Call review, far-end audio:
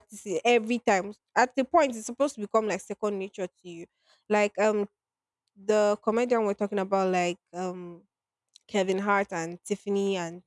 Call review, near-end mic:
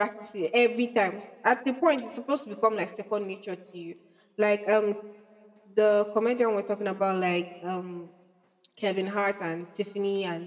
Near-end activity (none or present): none